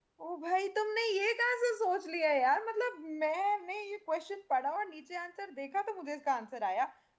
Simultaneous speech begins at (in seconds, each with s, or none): none